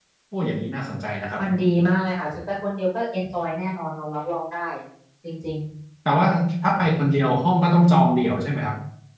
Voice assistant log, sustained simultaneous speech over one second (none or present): none